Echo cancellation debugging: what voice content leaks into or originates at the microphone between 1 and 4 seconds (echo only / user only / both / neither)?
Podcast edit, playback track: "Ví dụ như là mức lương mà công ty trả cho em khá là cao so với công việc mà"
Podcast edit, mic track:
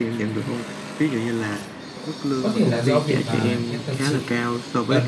both